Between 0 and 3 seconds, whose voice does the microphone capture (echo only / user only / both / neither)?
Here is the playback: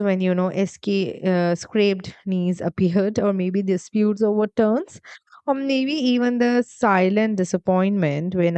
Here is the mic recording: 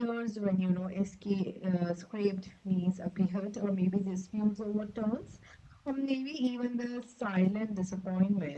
echo only